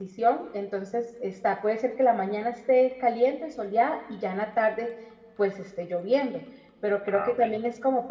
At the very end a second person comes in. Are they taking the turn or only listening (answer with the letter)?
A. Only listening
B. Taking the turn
A